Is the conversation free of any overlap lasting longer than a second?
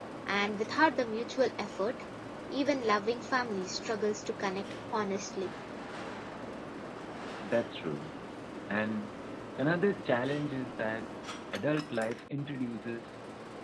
Yes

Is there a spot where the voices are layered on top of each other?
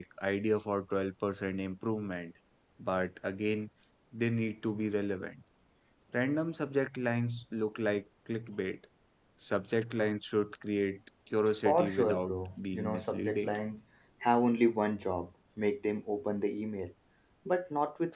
Yes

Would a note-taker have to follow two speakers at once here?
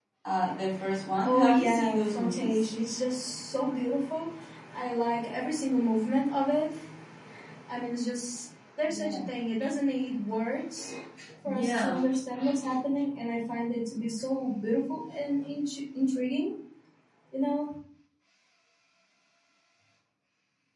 Yes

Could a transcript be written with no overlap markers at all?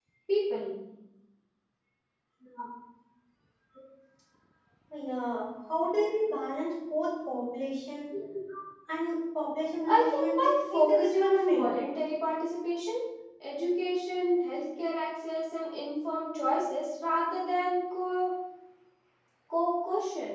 No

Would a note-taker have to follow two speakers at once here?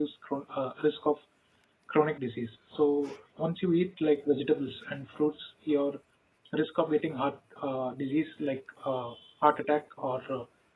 No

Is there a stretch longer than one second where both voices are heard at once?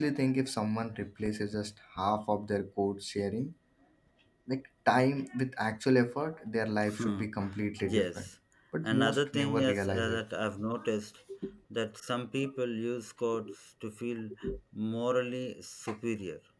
Yes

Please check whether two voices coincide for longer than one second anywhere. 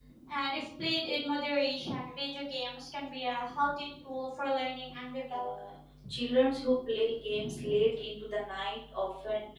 No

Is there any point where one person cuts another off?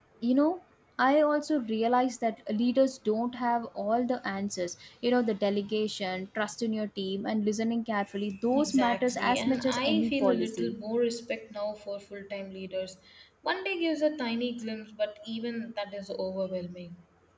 Yes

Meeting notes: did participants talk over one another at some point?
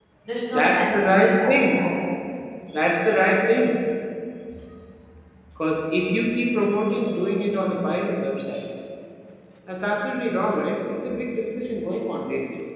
Yes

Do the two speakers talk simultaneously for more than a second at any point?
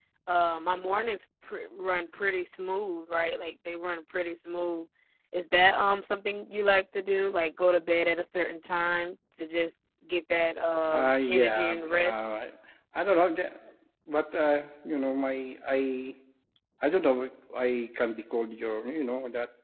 Yes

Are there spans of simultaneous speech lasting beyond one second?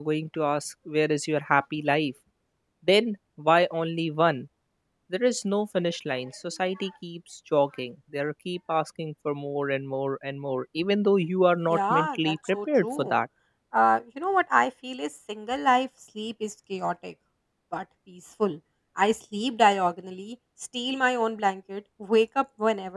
Yes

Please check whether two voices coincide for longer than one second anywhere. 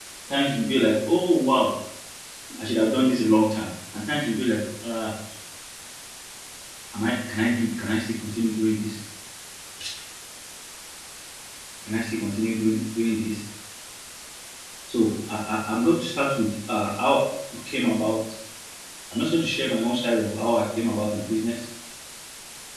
No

